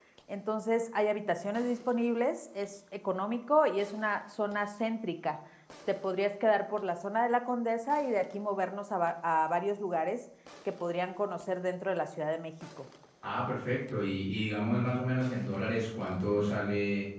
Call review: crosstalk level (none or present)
none